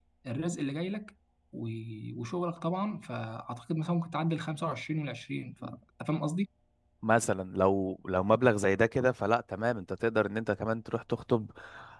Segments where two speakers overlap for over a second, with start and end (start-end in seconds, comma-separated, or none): none